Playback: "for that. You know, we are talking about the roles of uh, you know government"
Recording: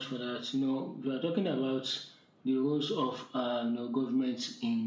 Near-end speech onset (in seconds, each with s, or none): none